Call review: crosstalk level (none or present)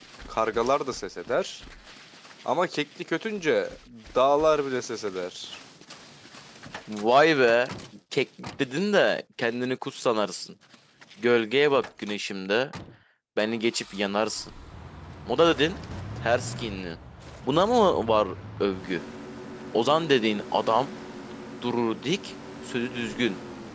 none